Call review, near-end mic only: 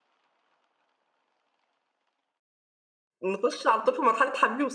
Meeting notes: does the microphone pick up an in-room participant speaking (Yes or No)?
Yes